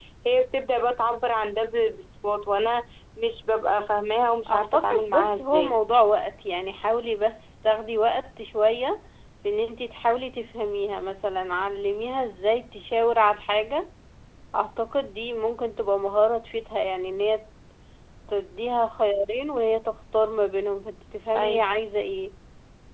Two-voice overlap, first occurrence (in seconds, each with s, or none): 4.5 s